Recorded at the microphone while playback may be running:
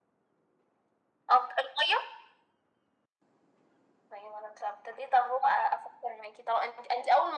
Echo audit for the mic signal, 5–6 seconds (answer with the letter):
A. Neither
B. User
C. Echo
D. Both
C